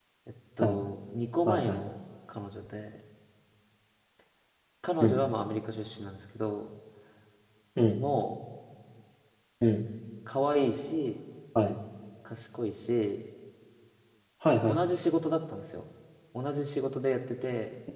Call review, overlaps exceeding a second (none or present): none